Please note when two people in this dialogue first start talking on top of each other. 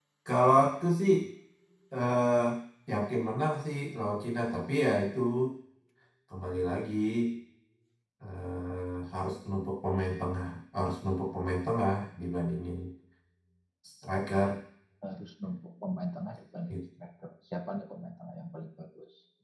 none

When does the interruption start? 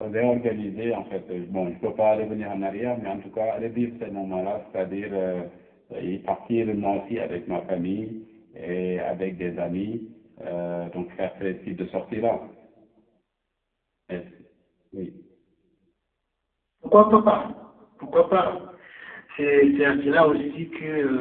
none

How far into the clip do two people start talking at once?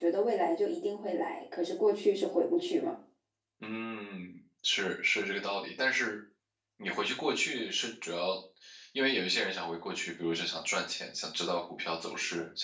none

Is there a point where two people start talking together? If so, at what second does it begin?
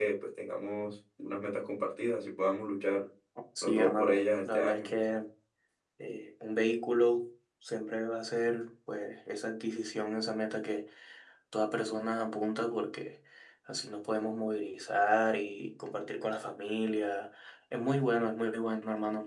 3.6 s

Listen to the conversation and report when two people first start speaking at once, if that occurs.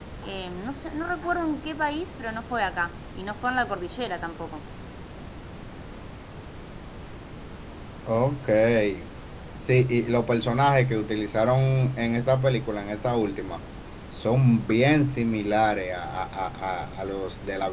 none

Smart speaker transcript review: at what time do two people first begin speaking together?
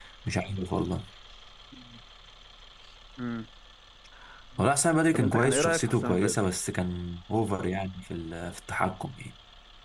5.1 s

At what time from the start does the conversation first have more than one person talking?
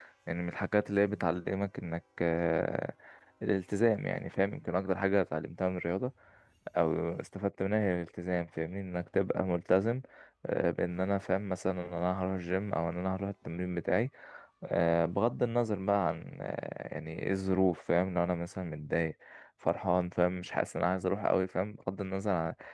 none

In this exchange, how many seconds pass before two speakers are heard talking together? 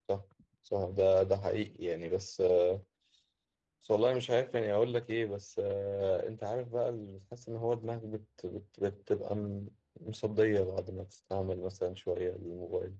none

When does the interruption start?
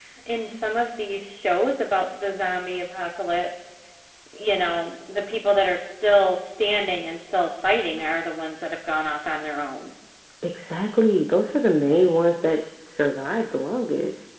none

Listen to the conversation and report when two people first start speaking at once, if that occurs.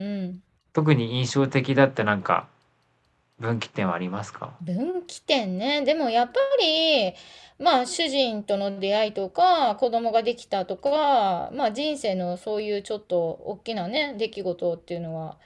none

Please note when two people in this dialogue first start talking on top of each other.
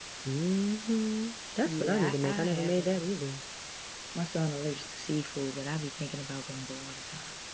1.6 s

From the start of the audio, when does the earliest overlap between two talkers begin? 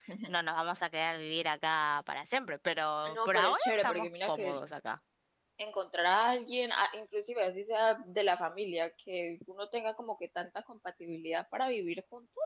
3.0 s

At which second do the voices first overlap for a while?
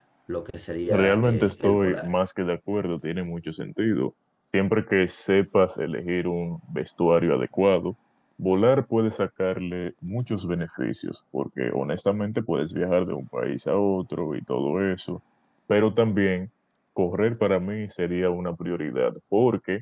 0.9 s

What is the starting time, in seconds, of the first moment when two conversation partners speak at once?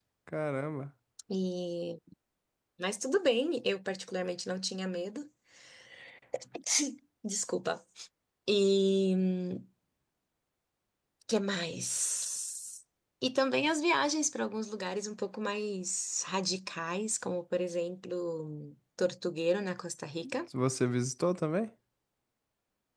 none

